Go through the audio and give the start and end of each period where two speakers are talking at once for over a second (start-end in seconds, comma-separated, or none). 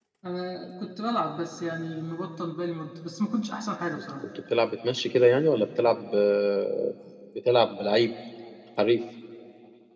none